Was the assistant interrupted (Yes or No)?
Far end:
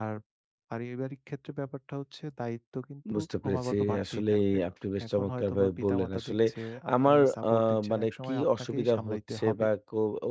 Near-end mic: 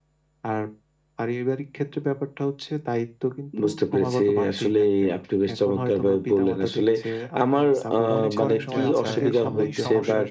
Yes